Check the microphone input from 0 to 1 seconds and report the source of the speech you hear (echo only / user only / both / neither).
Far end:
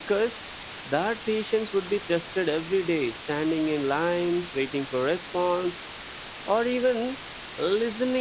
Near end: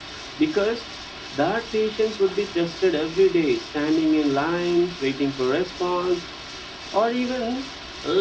echo only